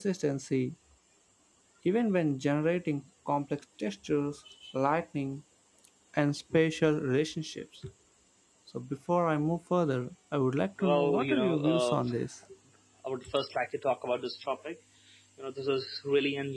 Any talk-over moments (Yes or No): Yes